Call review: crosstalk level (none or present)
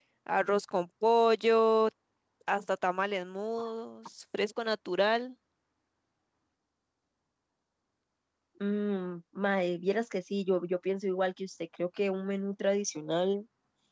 none